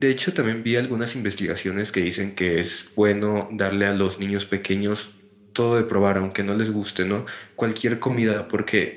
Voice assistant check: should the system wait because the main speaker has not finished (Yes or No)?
Yes